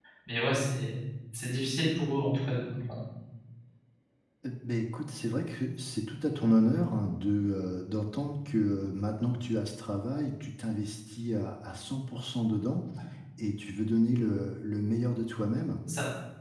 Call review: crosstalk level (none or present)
none